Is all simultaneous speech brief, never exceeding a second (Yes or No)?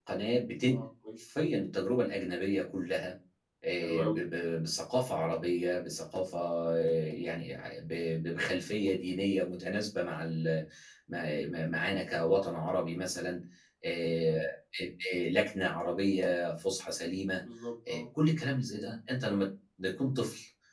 Yes